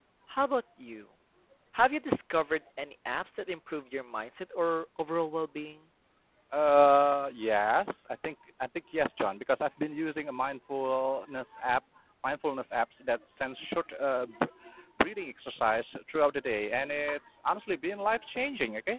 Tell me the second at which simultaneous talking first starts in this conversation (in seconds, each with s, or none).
none